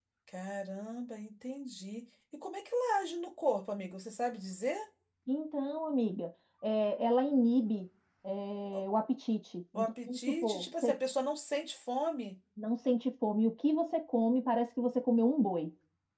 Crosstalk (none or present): present